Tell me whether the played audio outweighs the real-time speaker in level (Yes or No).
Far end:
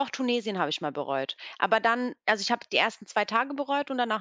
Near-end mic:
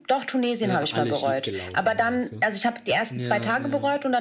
Yes